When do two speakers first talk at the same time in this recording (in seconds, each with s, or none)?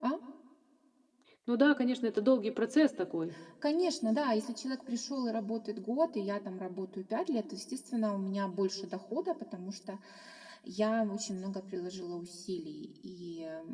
none